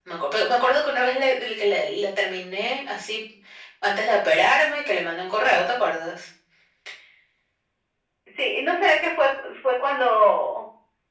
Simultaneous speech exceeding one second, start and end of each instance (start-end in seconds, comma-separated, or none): none